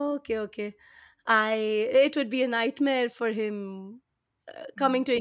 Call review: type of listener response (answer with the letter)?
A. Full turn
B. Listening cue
B